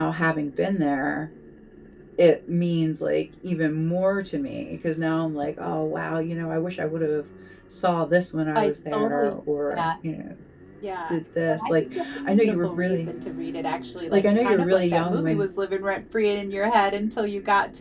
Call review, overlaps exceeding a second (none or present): present